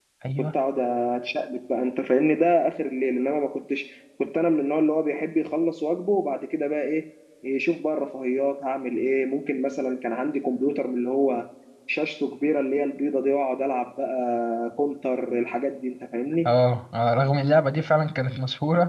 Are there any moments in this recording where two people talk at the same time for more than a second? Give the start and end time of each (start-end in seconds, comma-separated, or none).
none